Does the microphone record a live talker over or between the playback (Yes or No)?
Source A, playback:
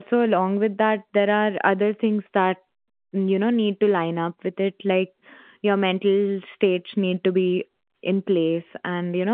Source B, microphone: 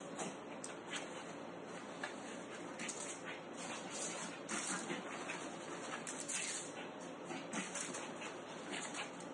No